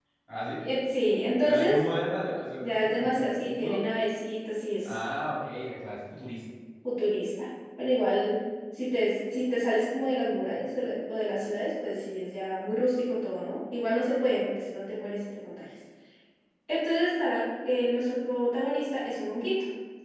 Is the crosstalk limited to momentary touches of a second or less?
No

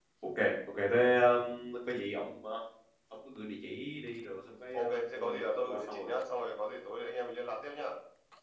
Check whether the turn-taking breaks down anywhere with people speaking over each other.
Yes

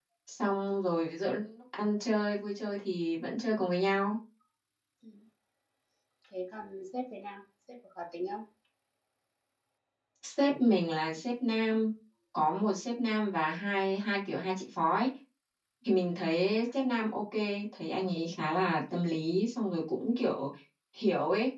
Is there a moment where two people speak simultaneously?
No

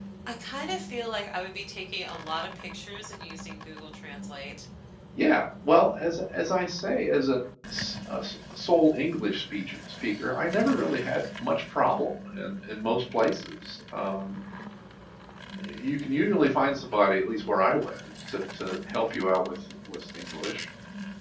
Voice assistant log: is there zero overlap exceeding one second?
Yes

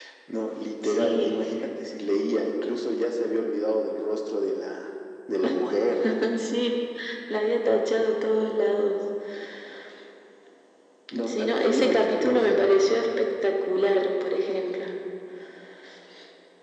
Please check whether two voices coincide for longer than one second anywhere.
Yes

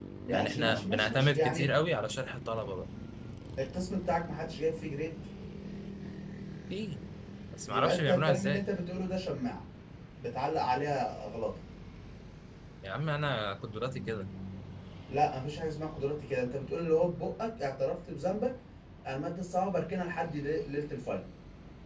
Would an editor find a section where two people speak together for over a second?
Yes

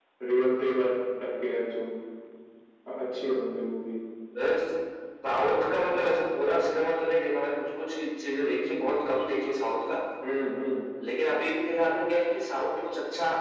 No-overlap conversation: Yes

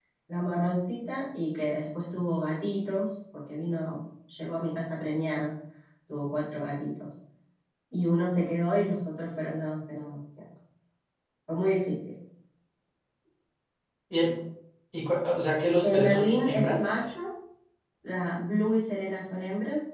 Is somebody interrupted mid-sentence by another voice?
Yes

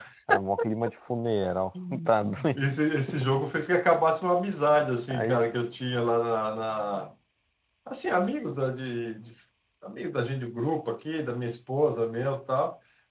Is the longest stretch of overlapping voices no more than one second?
Yes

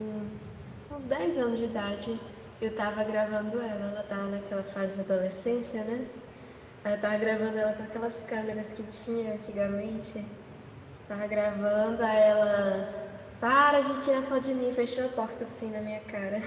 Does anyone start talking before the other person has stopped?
No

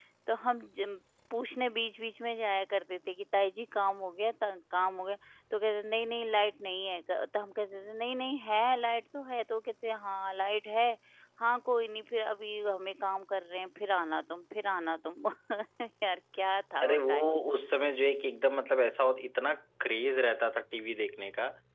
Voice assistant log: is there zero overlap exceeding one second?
Yes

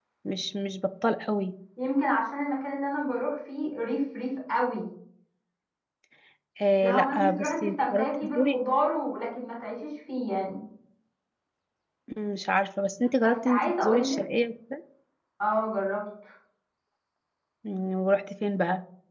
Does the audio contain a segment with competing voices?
Yes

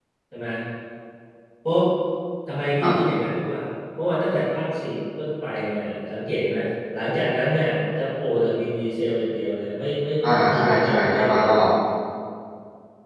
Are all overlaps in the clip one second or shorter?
No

